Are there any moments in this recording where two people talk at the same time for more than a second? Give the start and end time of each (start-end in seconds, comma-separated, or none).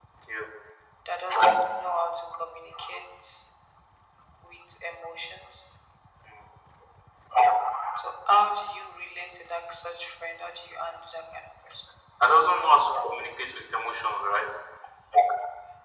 none